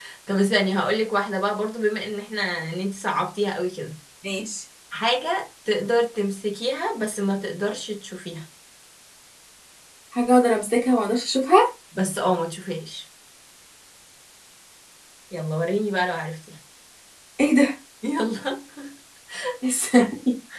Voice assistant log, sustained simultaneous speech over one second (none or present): none